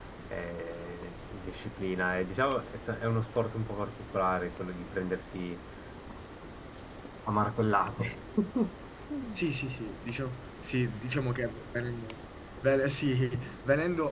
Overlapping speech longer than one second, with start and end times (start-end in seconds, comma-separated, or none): none